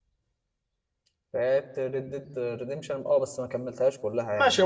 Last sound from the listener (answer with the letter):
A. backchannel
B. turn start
B